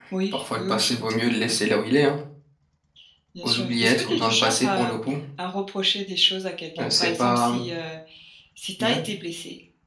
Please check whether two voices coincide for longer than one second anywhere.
Yes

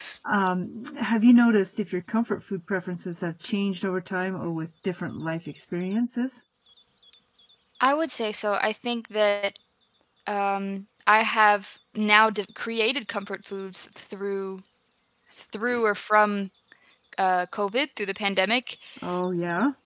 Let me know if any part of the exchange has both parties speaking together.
No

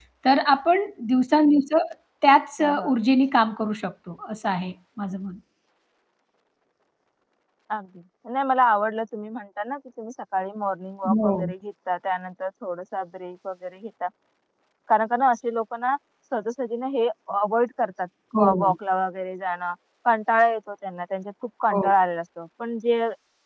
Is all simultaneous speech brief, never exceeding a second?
Yes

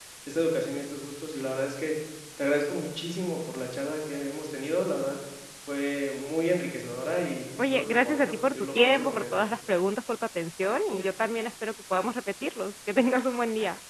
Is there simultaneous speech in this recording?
Yes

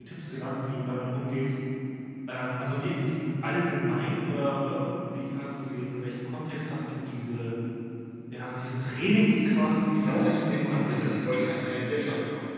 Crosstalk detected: Yes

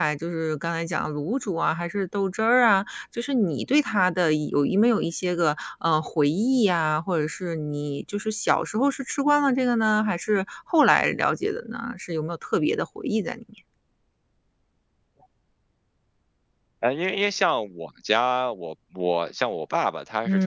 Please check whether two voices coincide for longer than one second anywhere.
No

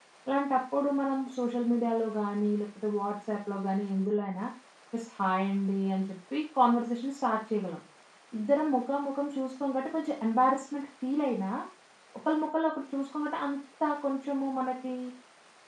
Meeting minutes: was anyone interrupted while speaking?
No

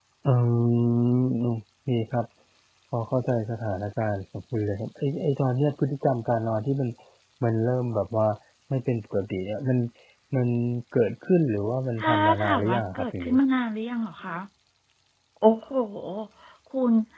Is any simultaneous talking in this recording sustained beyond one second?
Yes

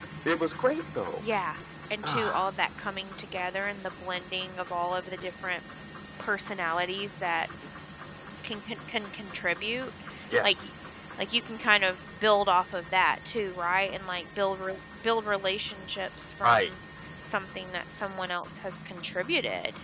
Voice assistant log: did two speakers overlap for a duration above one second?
No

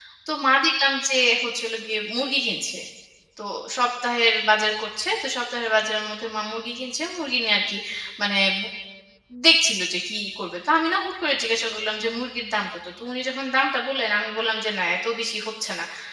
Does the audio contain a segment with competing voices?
No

